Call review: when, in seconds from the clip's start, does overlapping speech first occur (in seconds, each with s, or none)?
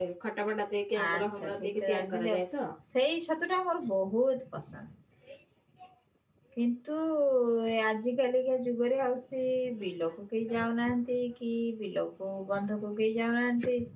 1.1 s